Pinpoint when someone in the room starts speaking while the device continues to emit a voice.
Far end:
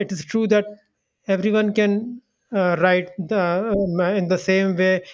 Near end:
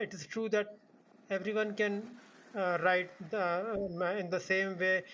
none

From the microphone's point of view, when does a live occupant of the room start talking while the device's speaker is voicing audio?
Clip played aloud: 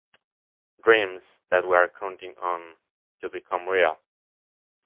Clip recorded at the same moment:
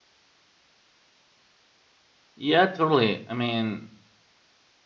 2.4 s

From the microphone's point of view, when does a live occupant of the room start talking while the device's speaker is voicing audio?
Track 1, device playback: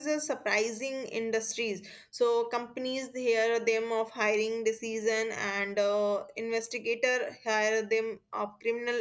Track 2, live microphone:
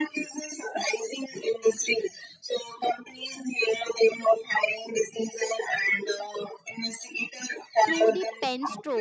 7.8 s

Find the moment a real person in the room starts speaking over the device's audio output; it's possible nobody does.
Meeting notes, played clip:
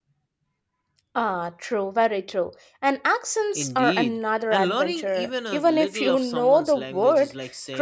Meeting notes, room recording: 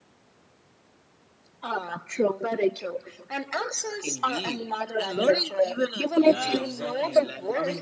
6.1 s

